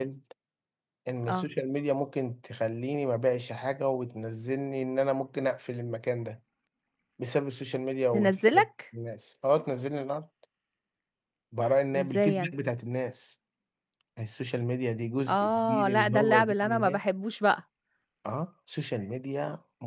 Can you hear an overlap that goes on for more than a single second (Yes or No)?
Yes